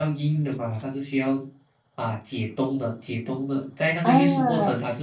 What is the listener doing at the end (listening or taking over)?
listening